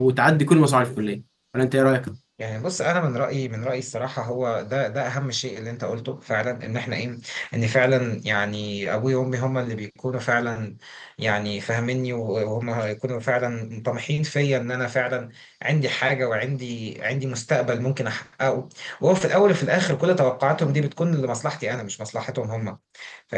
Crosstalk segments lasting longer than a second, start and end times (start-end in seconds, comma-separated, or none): none